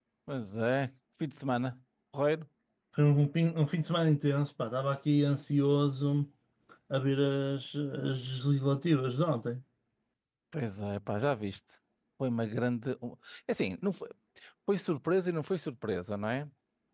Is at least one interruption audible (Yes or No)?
No